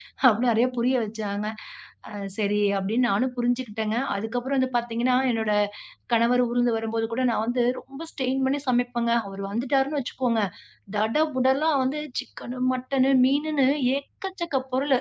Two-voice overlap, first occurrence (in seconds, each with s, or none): none